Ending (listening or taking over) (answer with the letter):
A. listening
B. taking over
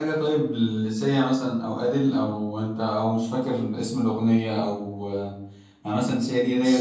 A